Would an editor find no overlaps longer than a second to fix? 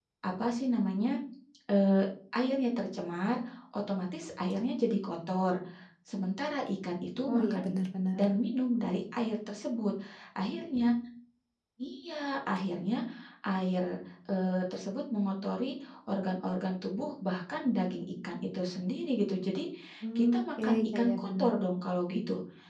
No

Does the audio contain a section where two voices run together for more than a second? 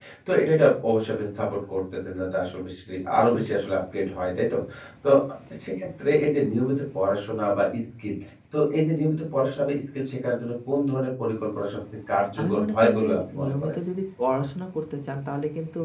Yes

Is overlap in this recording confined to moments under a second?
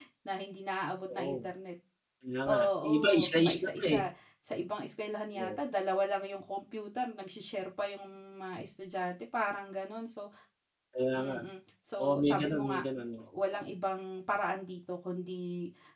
No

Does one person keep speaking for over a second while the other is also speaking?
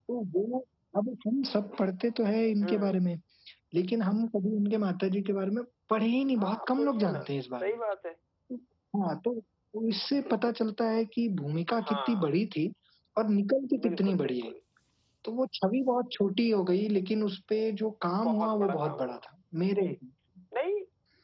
Yes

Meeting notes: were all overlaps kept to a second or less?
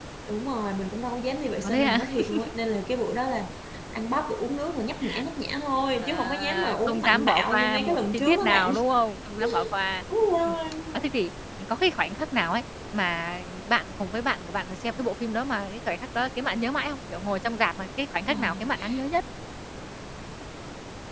No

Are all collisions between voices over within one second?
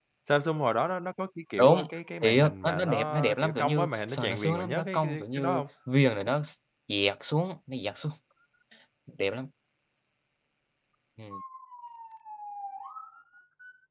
No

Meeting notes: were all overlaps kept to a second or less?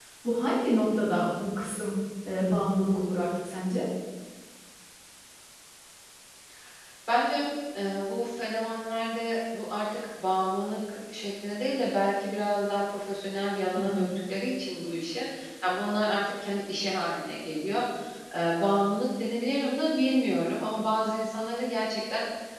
Yes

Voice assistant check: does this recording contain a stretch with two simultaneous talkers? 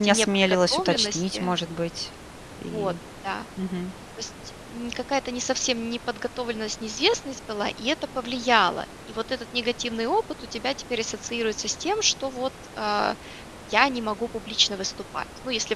Yes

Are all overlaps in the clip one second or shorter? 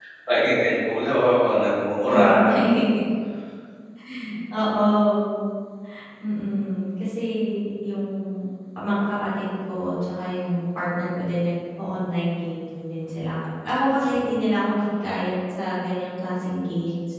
Yes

